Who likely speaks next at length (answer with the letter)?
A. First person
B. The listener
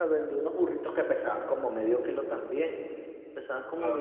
B